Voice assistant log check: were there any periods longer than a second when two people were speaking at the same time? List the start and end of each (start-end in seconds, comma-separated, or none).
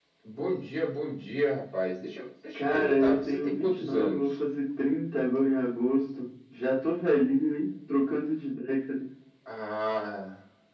2.5-4.3